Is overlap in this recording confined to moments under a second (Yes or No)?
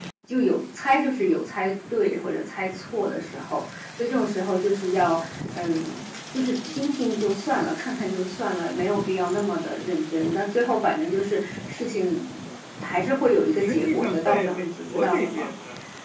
No